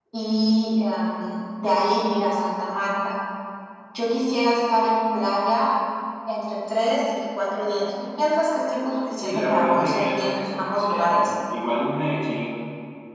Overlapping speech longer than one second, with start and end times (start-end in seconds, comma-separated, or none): 9.2-11.3